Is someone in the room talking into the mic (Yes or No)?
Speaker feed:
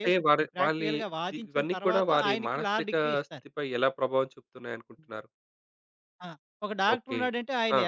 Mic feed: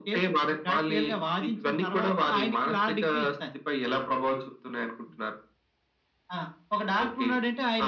No